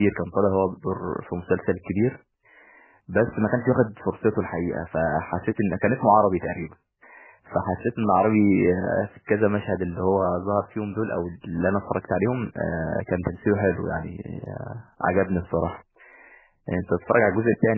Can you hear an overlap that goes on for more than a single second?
No

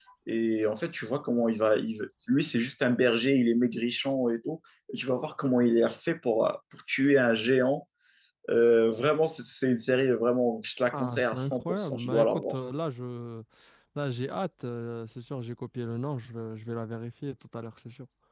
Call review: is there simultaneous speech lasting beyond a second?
Yes, from 10.9 s

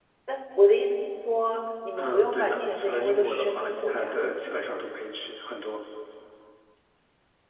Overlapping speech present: Yes, from 2.0 s

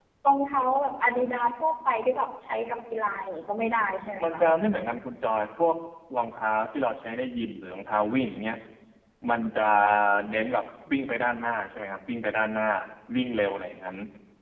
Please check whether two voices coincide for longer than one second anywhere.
No

